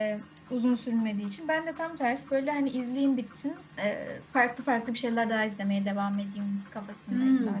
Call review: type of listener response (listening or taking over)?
taking over